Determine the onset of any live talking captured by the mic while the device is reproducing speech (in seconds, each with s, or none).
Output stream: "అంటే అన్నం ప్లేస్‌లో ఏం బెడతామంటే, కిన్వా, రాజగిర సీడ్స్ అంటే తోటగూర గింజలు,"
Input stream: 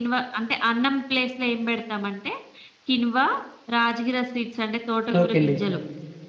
5.2 s